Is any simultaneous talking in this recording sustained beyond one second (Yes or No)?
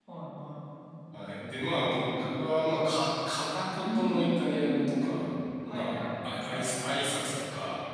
Yes